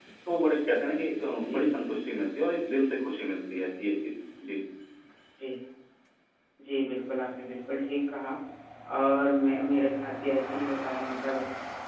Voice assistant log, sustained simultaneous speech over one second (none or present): none